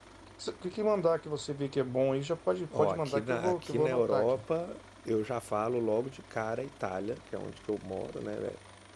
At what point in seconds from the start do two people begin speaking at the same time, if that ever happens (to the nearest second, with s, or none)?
3 s